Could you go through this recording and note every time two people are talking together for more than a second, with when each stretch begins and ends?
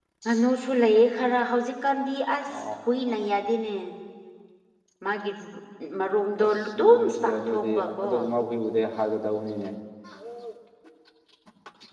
6.4-8.1

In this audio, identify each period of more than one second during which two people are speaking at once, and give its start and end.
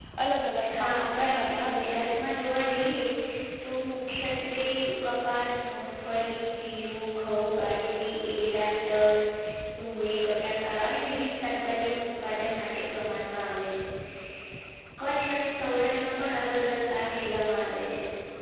0.8-2.0

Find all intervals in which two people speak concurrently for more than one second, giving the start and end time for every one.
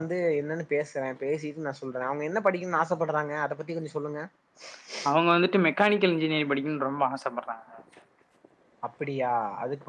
none

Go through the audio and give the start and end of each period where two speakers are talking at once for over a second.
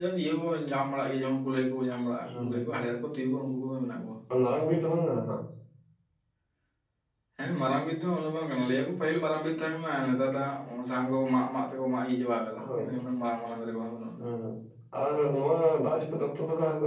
none

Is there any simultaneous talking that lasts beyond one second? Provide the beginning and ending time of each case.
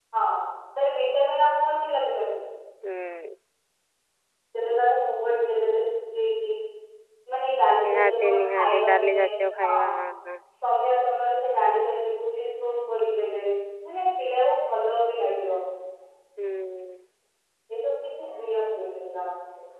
7.8-9.2

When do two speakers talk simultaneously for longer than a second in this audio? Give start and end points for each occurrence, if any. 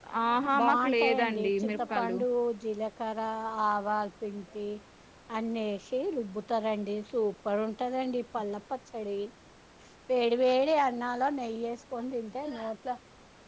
0.6-2.2

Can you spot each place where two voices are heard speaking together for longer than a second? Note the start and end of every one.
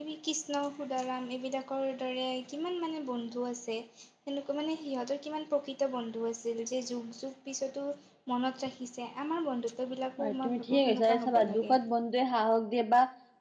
10.2-11.7

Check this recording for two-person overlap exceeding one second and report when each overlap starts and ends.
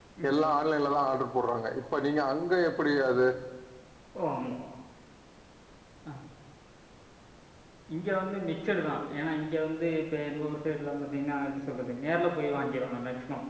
none

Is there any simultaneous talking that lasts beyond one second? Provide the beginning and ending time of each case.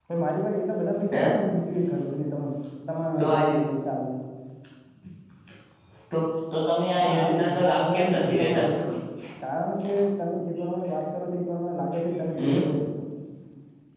7.0-8.6

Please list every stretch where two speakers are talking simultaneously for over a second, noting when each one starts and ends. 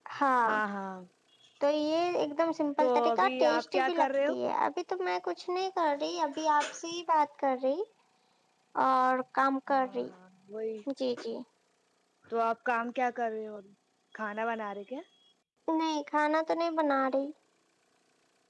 3.1-4.4

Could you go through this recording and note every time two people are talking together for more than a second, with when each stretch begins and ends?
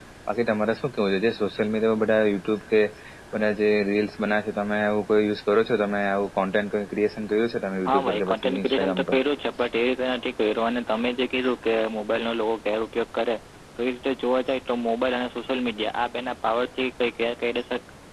7.9-9.2

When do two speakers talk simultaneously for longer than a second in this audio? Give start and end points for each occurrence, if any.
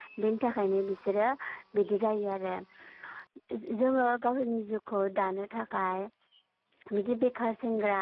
none

